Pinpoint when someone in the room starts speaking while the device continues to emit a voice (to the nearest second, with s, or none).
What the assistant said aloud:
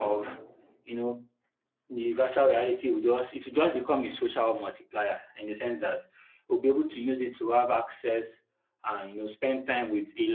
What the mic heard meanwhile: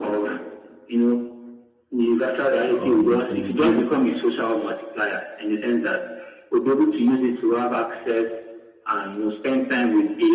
3 s